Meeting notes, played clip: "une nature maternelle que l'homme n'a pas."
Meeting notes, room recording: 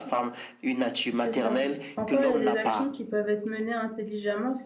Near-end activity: present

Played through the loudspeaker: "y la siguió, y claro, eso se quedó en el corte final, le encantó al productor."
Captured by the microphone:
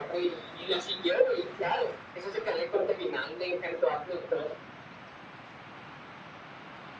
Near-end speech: none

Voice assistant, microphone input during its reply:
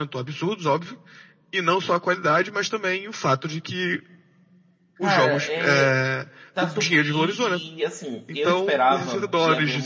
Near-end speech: present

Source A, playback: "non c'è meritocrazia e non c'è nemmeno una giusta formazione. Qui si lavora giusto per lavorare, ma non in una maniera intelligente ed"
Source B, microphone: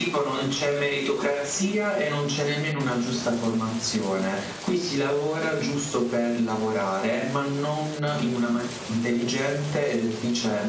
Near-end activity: none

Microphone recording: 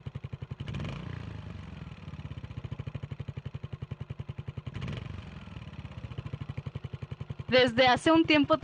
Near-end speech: present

